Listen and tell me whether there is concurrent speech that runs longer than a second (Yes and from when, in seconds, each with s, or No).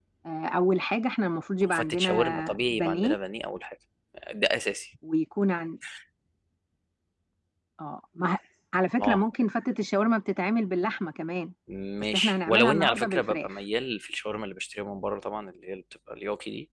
Yes, from 1.7 s